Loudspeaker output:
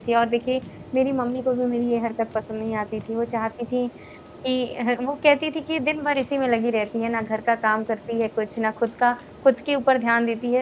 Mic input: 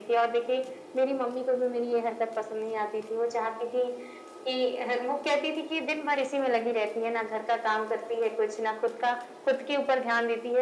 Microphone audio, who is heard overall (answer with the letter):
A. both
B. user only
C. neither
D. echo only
D